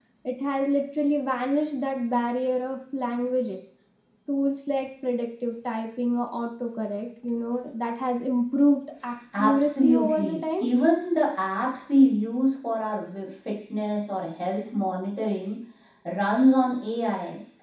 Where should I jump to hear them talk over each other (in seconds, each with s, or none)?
9.4 s